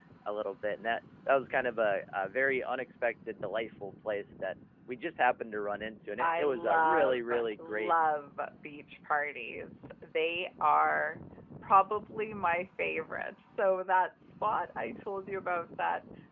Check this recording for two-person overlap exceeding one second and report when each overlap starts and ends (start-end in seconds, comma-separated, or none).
6.2-7.9